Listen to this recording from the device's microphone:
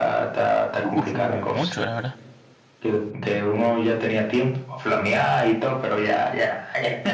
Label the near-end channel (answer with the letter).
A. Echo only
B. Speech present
B